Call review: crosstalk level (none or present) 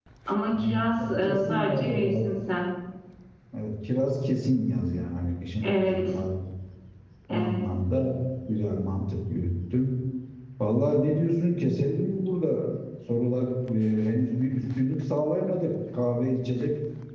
present